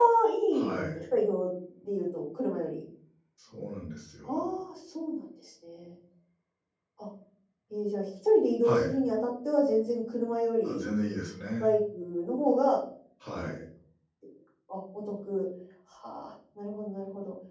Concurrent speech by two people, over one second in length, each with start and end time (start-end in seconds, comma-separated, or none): none